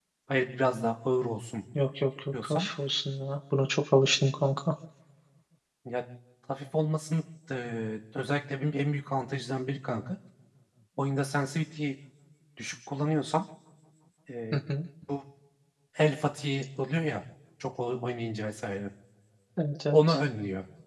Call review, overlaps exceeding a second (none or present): none